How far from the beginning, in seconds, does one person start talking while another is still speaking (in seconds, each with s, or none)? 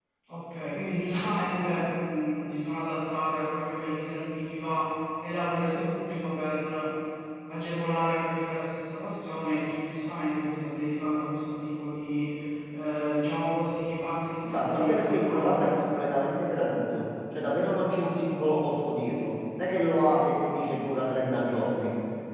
14.4 s